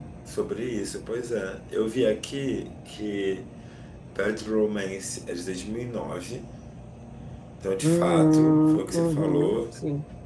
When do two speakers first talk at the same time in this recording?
7.8 s

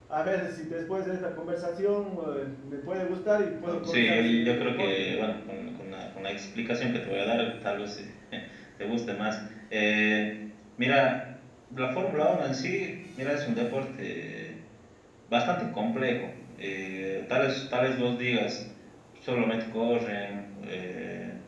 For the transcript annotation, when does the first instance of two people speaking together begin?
3.6 s

